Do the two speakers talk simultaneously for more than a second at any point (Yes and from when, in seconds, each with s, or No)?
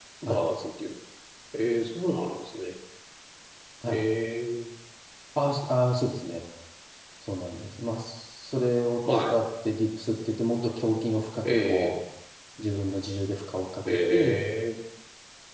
No